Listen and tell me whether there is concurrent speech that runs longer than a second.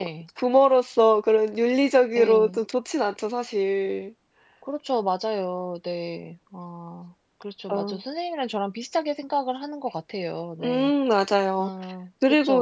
No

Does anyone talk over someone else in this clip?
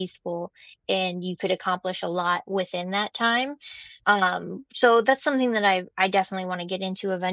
No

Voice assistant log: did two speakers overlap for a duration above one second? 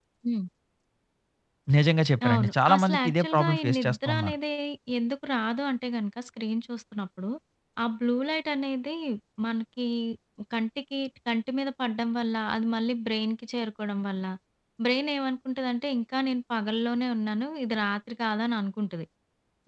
Yes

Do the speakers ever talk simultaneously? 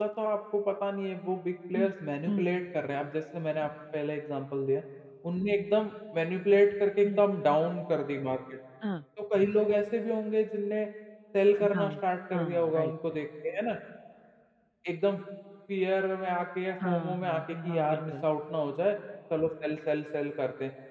Yes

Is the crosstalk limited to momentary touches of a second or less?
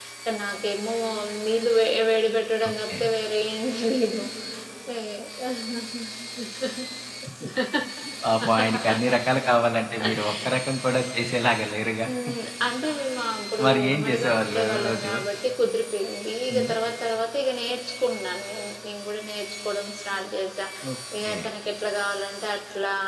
No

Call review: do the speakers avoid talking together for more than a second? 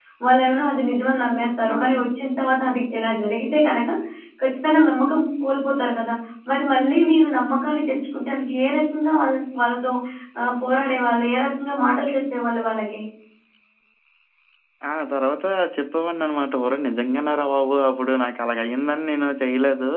Yes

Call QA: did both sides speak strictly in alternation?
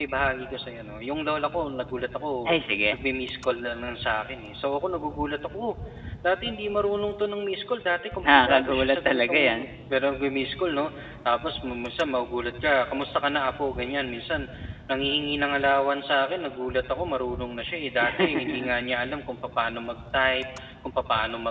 No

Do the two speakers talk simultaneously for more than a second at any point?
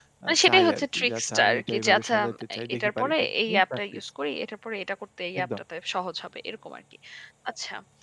Yes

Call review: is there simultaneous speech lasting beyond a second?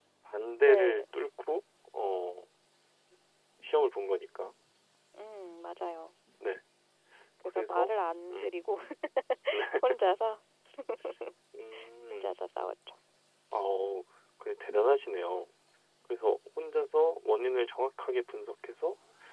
No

